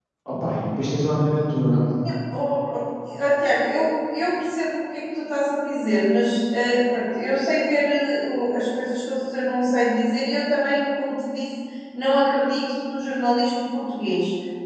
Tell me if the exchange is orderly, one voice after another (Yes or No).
Yes